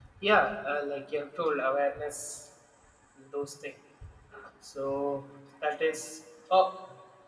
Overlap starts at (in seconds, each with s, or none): none